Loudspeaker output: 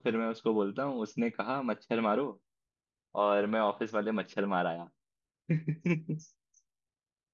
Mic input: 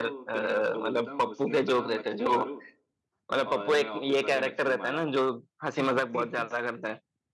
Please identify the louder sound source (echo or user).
user